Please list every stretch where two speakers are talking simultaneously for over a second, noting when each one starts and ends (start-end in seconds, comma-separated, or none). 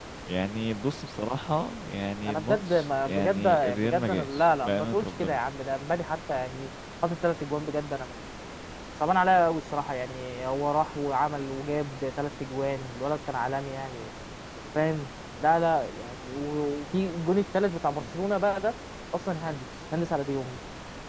2.3-5.4